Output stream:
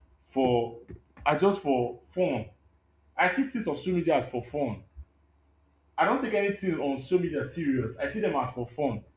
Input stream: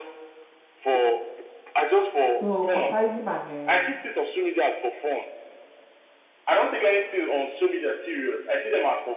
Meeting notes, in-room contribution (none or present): present